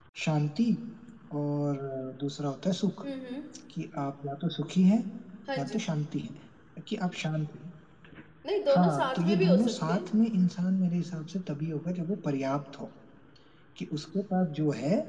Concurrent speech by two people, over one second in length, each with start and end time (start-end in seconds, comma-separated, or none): 8.8-10.1